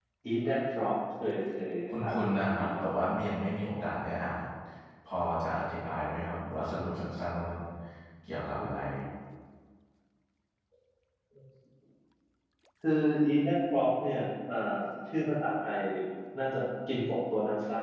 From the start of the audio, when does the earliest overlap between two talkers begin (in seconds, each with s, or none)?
1.9 s